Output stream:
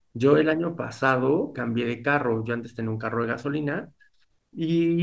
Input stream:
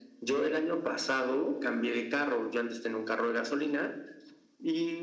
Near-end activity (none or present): none